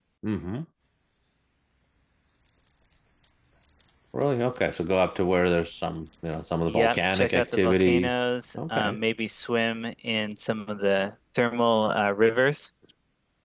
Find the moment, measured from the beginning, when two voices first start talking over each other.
7 s

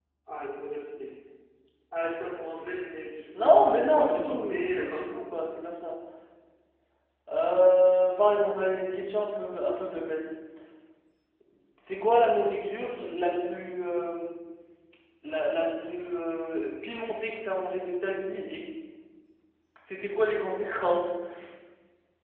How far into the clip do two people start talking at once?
3 s

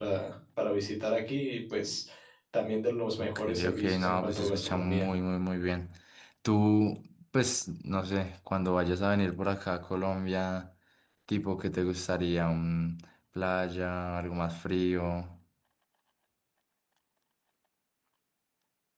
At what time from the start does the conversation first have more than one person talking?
3 s

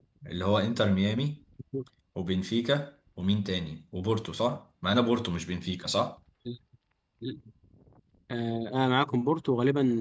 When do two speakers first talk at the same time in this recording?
none

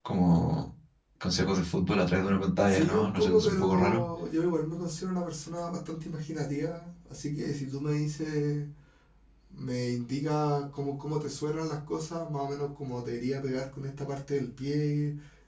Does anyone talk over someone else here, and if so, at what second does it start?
3 s

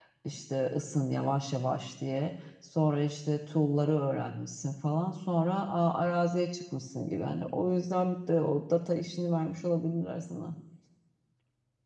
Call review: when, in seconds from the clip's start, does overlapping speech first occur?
none

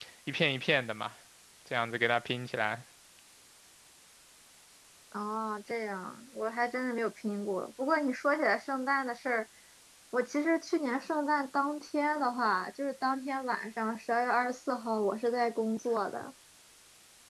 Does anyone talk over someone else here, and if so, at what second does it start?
none

